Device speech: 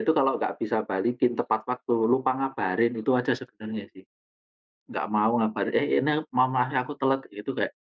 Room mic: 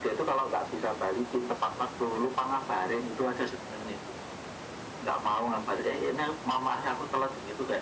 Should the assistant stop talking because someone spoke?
No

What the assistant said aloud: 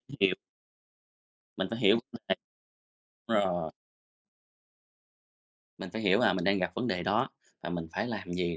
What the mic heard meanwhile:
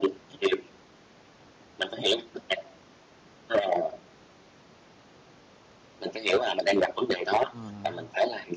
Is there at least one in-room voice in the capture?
Yes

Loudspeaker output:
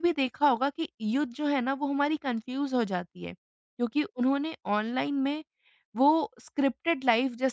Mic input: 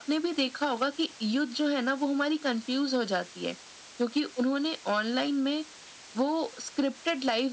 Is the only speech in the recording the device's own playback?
Yes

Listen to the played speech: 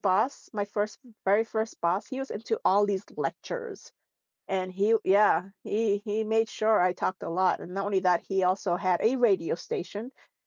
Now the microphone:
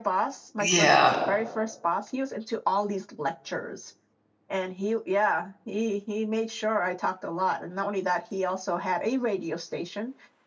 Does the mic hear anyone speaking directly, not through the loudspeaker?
Yes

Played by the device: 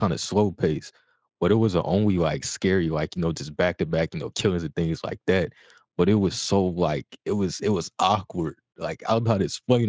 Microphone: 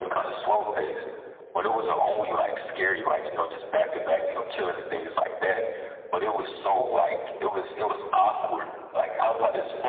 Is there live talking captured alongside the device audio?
No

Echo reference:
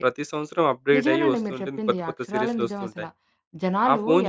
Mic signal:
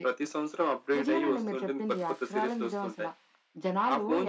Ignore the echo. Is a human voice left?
No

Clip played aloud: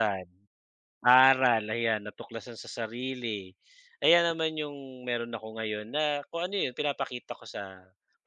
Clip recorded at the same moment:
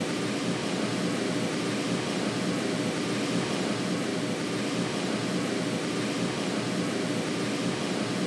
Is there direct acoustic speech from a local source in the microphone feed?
No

